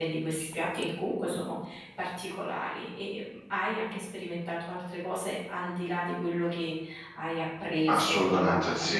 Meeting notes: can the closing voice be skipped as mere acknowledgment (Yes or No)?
No